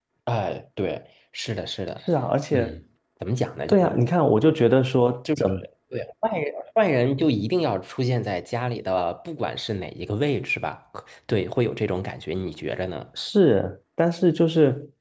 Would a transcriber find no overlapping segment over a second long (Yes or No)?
Yes